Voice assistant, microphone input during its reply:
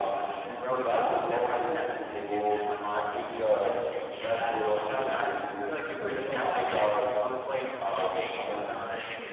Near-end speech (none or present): none